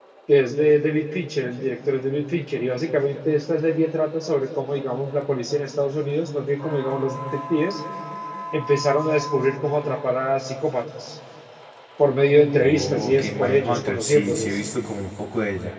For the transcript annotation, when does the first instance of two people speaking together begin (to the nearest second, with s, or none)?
13 s